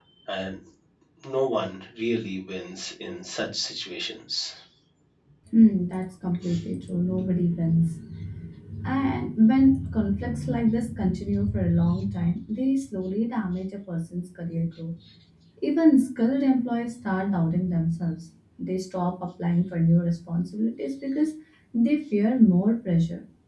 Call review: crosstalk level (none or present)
none